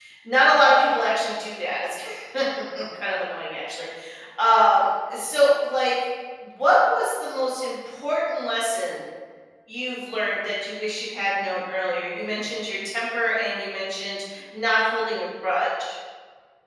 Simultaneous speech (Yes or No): No